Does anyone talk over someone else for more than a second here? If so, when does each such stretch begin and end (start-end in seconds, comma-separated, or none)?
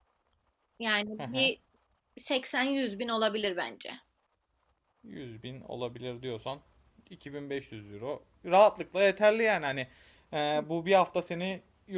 none